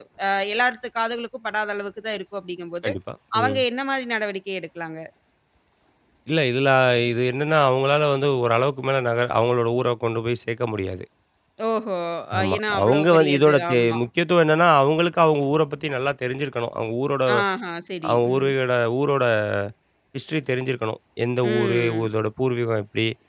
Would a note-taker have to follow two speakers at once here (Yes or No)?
Yes